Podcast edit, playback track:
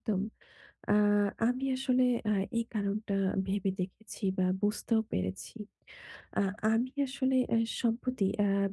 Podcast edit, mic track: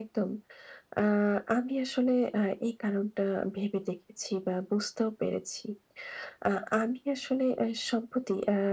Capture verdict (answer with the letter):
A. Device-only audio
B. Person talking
A